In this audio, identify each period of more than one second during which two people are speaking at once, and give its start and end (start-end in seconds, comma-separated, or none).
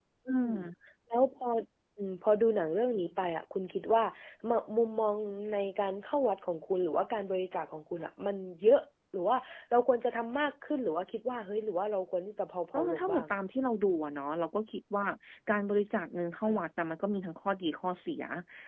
none